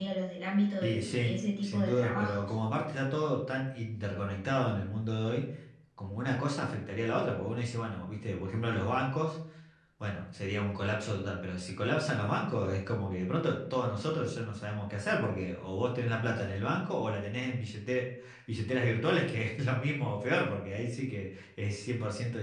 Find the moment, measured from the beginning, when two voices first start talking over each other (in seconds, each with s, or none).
0.8 s